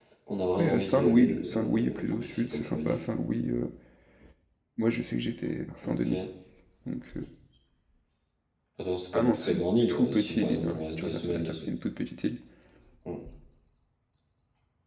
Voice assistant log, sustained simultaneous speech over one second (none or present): present